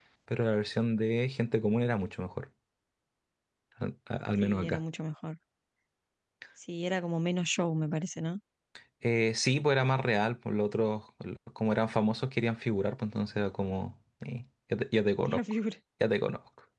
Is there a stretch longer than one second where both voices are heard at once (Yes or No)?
No